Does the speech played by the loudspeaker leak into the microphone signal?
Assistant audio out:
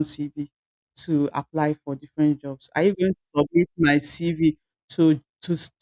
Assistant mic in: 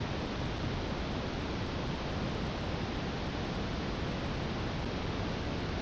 No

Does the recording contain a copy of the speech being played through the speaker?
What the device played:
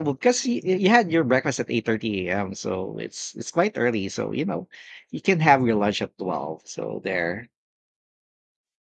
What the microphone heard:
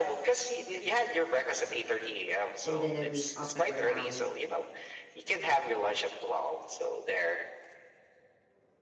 Yes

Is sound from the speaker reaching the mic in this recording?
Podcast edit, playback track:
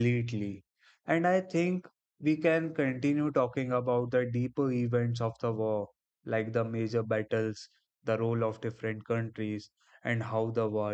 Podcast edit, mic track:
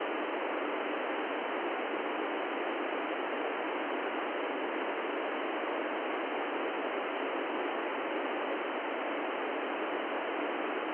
No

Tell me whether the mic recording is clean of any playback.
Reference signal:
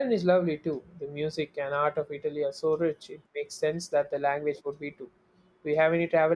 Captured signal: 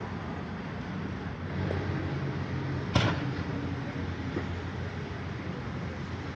Yes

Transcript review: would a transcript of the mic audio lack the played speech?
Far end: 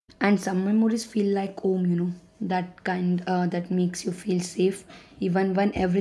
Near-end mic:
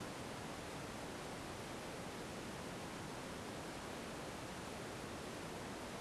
Yes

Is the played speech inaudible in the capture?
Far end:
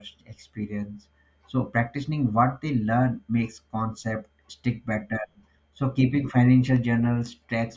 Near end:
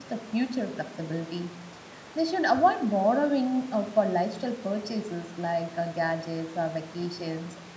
Yes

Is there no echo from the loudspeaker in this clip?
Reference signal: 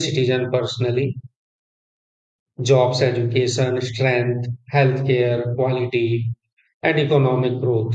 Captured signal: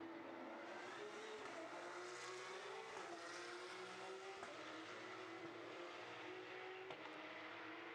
Yes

